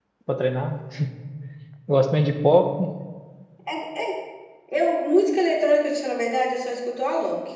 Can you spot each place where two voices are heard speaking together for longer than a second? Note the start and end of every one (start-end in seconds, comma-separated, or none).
none